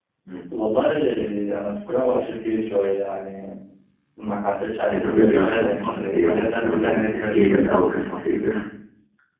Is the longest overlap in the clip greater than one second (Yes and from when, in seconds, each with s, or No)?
Yes, from 4.9 s